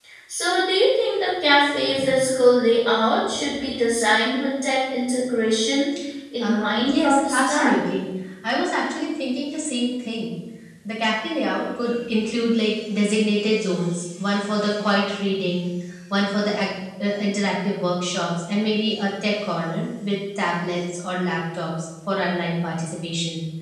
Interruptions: present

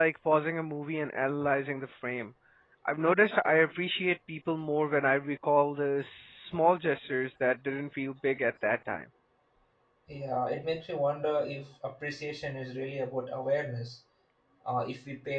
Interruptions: none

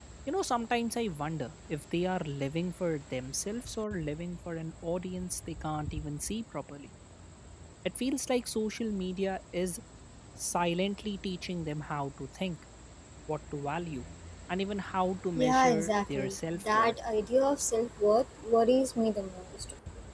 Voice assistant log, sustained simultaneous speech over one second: present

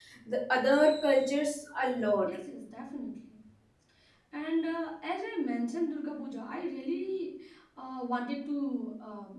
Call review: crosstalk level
none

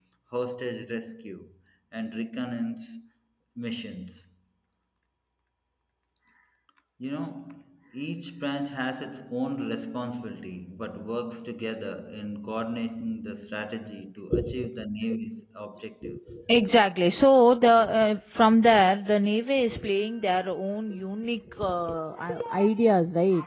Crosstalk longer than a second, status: none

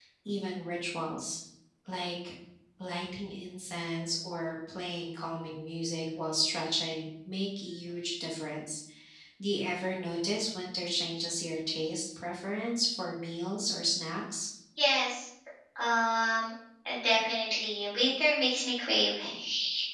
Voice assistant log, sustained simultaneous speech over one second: none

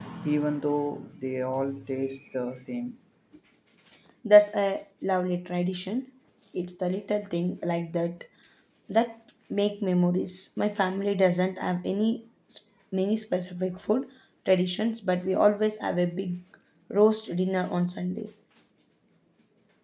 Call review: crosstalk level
none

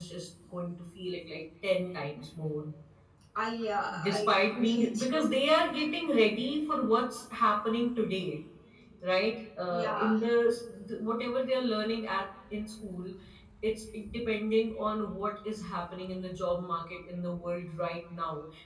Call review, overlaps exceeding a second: present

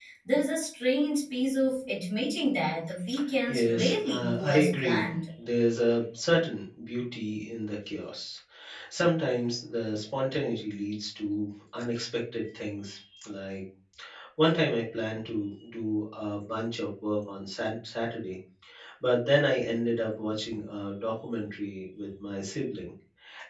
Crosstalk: present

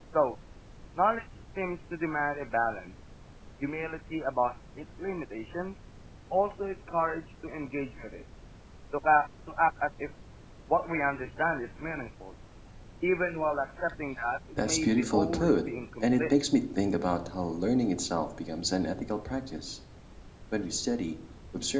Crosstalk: present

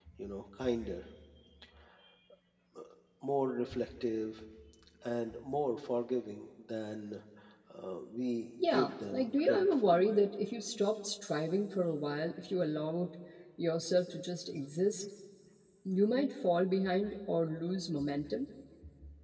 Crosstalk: present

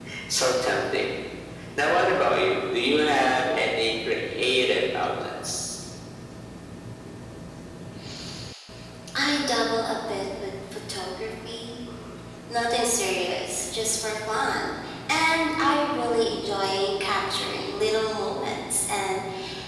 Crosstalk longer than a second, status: none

